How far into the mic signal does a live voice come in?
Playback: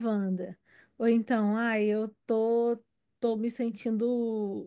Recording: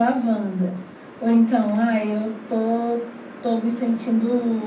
none

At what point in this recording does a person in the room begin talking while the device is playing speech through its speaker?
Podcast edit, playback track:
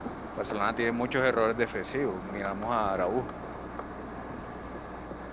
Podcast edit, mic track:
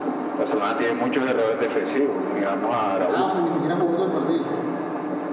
3 s

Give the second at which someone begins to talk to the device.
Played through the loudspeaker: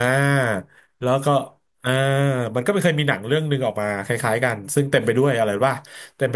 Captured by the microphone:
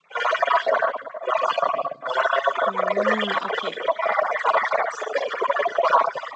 3 s

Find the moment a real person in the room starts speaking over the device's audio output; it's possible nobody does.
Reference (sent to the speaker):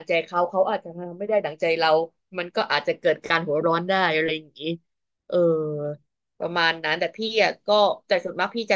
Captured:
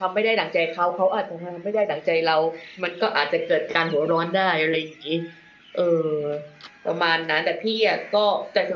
none

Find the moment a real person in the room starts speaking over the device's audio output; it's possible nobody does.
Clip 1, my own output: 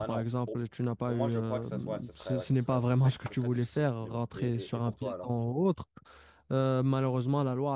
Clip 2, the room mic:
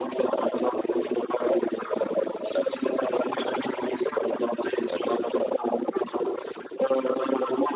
5 s

